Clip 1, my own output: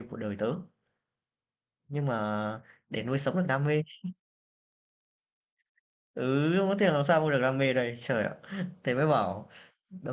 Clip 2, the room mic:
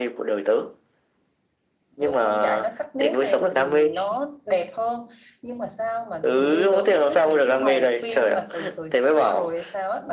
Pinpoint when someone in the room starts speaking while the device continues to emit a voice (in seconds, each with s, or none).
2.0 s